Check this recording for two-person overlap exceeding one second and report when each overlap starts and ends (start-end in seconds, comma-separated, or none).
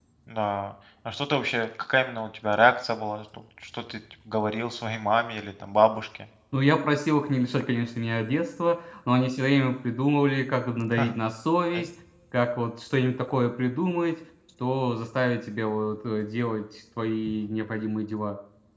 none